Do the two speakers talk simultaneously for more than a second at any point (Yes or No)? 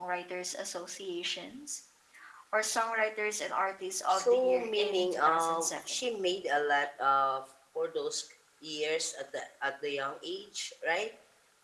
Yes